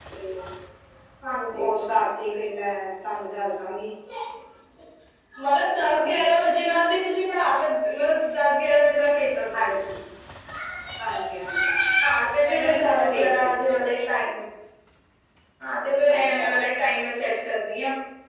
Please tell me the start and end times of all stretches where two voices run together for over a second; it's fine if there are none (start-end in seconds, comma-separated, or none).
12.5-13.8